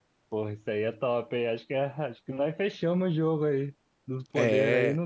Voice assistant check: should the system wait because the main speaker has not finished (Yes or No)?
Yes